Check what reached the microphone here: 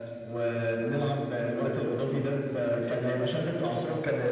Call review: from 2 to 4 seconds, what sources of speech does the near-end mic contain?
echo only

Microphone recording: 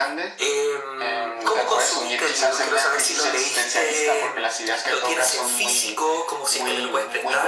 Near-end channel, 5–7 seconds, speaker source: echo only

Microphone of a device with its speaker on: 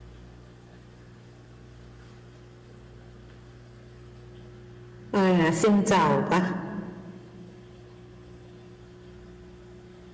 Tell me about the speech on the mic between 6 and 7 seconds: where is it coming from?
user only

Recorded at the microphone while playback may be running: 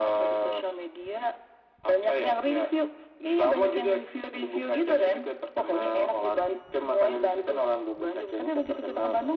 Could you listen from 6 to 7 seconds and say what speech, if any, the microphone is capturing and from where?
echo only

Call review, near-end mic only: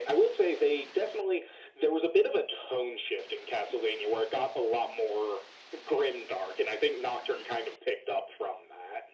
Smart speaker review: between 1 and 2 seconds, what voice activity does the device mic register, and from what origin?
echo only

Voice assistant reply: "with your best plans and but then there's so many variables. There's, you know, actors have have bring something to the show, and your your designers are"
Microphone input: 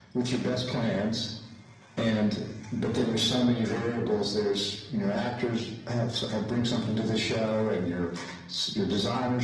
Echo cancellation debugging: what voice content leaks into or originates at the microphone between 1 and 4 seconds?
echo only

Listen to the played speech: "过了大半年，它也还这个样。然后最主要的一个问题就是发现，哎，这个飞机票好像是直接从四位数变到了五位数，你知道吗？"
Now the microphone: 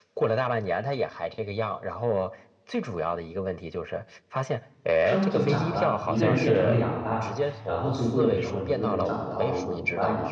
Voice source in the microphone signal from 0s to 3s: echo only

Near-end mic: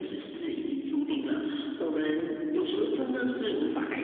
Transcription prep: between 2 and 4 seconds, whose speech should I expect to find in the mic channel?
echo only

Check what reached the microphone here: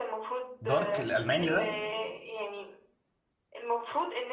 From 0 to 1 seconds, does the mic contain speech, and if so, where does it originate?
both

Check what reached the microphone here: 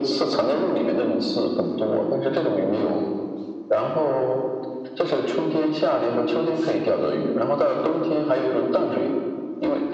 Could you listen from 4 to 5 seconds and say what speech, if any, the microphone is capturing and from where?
echo only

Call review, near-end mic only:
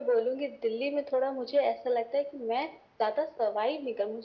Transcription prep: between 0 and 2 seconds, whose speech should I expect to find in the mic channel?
echo only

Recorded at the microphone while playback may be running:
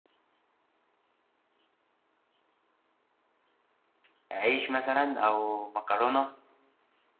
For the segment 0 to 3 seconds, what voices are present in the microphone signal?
neither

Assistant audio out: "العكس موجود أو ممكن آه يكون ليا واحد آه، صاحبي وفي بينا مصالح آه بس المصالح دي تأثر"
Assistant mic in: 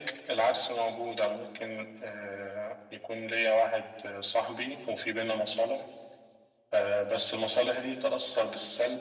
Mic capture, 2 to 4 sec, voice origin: echo only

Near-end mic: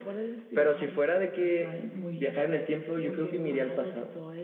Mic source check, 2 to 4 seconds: echo only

